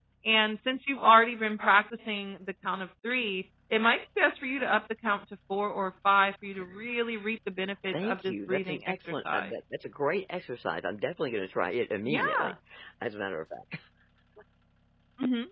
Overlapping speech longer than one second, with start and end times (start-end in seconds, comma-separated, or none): 7.9-9.6